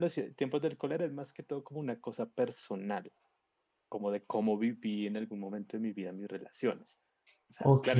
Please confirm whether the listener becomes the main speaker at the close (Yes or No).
No